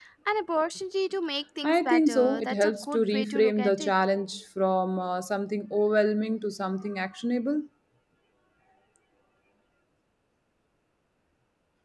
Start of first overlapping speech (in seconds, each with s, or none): 1.6 s